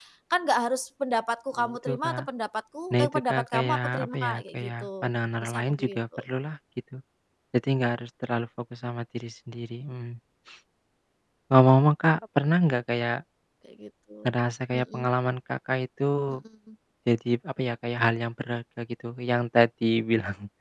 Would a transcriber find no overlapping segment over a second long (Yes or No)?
No